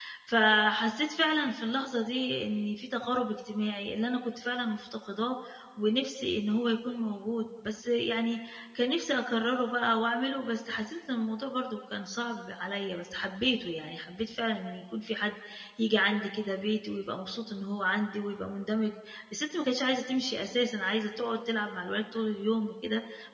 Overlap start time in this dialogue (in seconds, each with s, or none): none